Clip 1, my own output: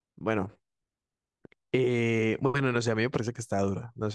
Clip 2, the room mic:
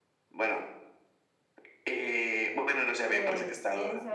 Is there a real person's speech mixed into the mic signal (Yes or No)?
Yes